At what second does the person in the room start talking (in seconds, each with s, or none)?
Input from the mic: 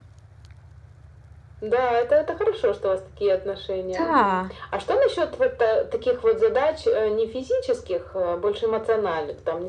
4.0 s